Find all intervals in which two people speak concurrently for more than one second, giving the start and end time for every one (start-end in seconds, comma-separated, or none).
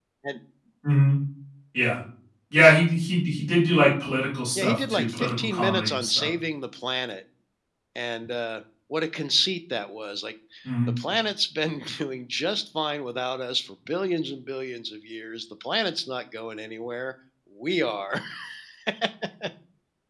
4.5-6.3